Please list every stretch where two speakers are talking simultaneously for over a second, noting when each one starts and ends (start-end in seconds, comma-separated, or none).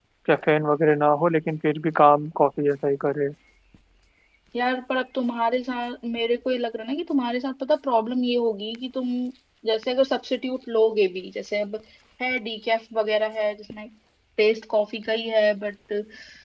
none